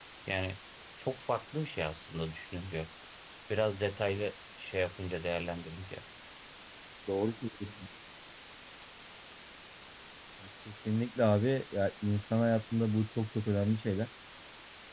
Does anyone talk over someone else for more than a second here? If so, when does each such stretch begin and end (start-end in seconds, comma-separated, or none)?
none